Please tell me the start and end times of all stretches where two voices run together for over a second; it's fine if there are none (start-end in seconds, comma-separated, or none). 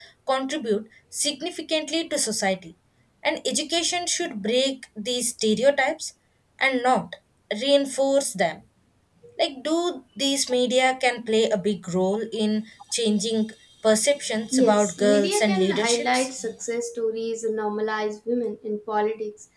14.5-16.3